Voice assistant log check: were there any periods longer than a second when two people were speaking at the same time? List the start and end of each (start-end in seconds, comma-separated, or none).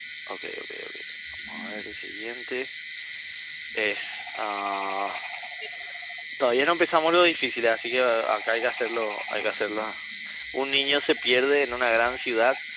none